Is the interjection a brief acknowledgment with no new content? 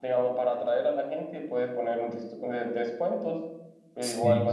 Yes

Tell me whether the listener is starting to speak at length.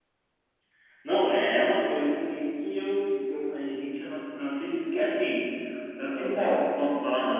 No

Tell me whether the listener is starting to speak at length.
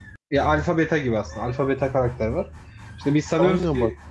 No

